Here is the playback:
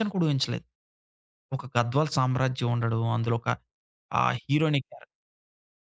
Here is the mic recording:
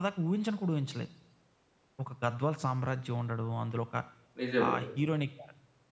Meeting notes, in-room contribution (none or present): present